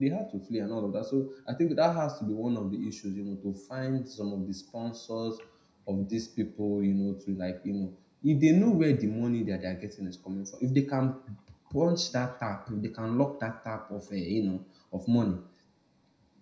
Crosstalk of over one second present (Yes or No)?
No